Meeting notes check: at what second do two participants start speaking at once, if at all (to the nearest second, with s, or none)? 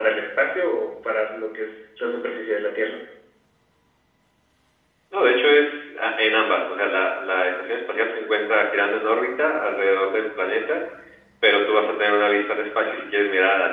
none